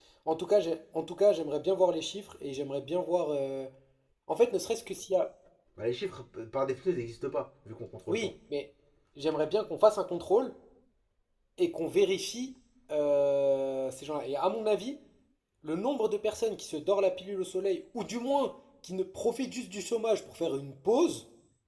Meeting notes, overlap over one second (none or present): none